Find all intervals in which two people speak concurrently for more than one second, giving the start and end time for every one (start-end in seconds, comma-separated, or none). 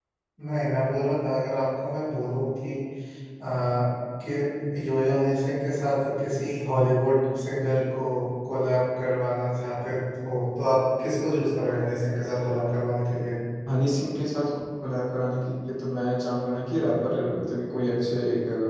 none